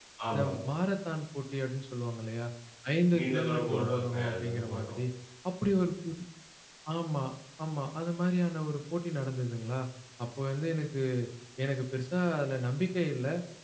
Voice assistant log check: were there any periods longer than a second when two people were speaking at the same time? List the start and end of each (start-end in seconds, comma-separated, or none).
3.2-5.0